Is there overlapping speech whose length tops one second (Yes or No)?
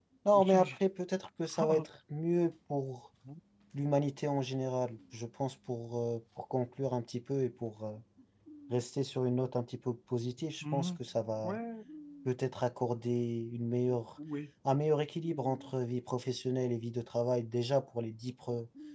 No